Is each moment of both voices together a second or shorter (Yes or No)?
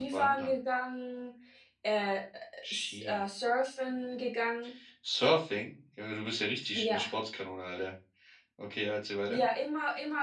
Yes